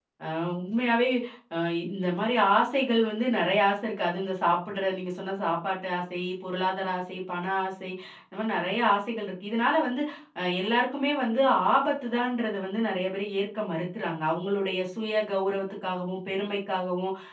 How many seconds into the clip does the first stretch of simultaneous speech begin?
none

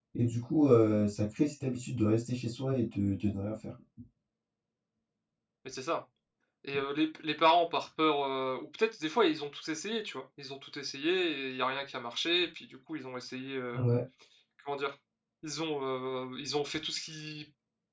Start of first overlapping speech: none

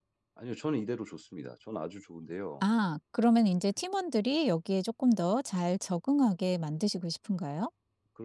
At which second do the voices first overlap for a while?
none

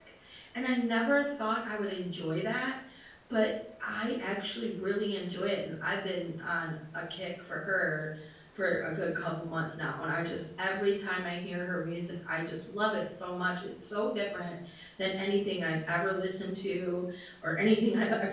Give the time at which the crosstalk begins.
none

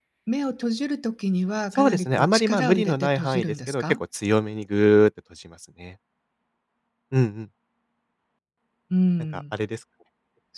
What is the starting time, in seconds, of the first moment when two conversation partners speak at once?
1.7 s

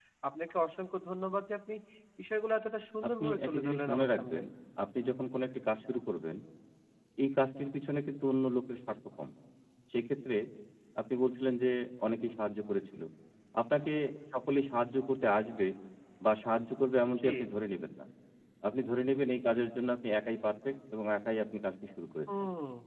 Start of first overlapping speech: 3.1 s

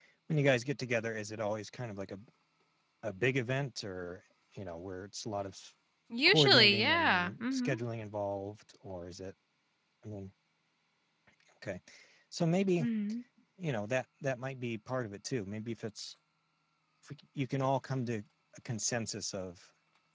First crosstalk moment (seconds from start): 6.3 s

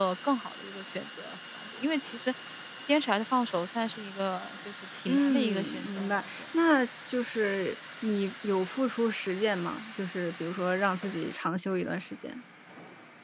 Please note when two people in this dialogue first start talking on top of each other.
5.1 s

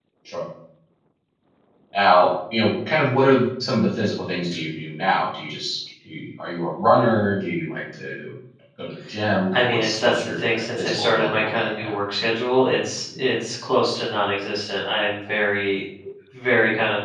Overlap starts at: 9.5 s

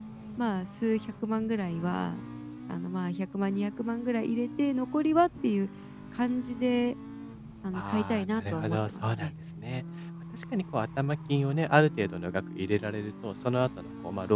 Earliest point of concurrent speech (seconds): 7.7 s

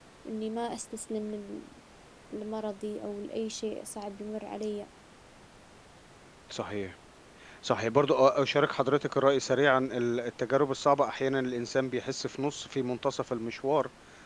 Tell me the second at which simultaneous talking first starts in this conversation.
none

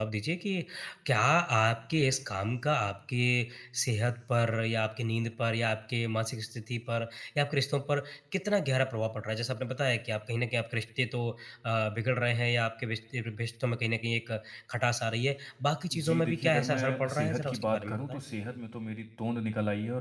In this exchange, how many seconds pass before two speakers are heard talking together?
15.9 s

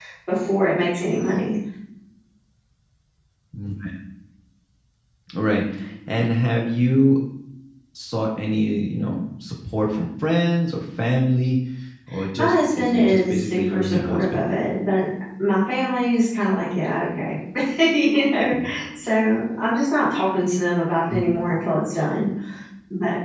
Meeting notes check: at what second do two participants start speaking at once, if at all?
12.4 s

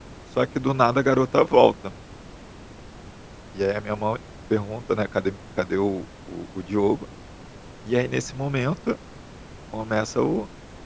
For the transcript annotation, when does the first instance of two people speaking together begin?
none

